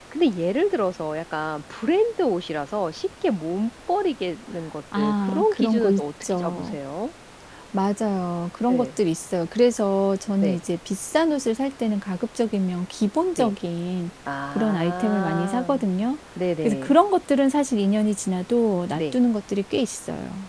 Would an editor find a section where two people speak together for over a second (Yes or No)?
Yes